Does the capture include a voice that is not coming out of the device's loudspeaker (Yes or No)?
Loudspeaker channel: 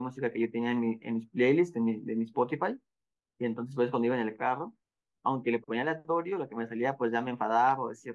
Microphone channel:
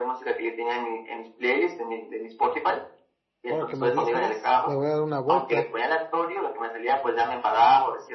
Yes